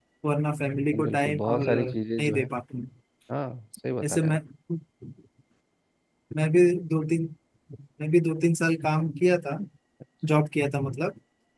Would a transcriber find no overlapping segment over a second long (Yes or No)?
No